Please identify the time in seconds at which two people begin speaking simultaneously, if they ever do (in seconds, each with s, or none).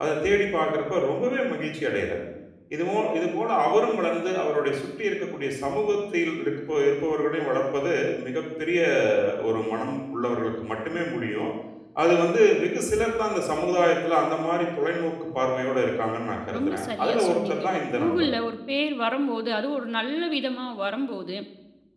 16.5 s